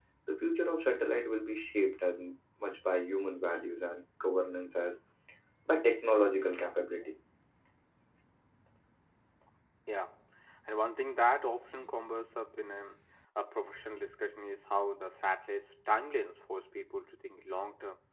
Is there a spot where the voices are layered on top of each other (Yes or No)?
No